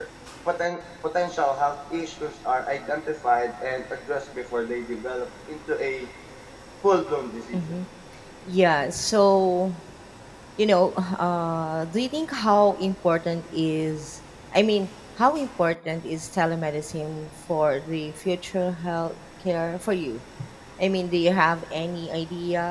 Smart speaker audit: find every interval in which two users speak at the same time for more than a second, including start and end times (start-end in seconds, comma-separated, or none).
none